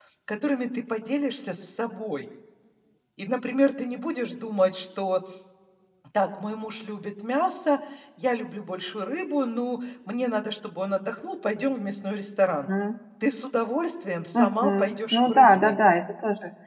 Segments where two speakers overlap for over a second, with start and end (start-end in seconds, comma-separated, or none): 14.4-15.8